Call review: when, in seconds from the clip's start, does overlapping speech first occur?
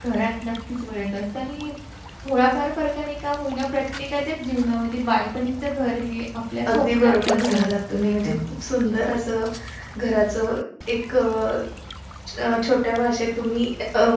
6.7 s

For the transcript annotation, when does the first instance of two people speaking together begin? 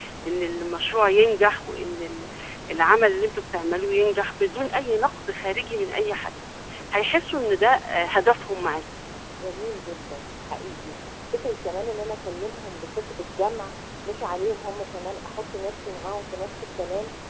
none

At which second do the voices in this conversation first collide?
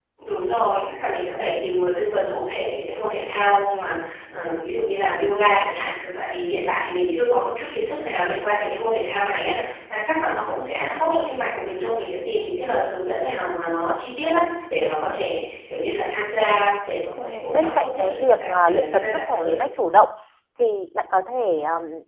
17.2 s

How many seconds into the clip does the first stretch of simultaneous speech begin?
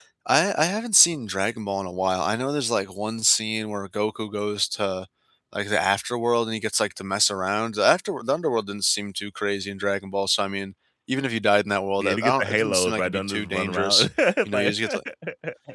12.0 s

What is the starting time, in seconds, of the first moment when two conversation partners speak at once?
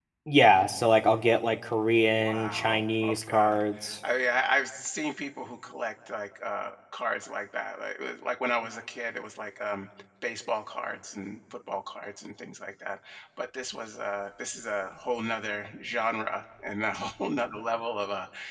2.1 s

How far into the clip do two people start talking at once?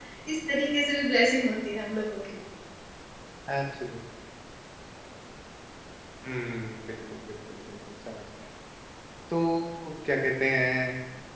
none

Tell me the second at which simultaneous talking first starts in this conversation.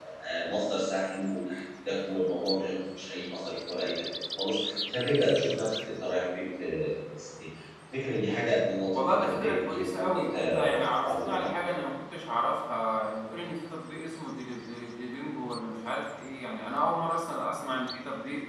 8.9 s

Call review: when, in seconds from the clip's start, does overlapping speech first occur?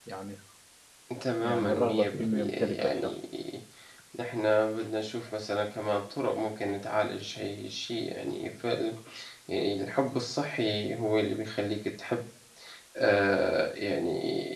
1.4 s

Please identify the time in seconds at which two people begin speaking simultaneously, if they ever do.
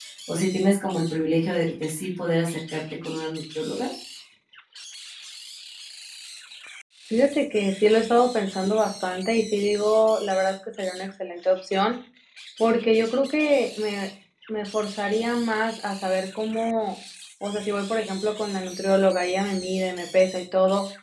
none

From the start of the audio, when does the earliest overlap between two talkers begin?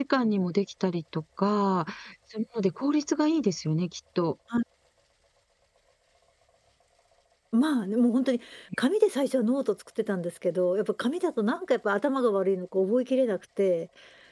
none

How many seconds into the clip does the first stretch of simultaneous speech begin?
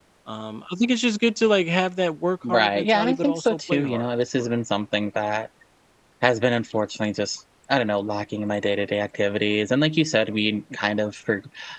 2.4 s

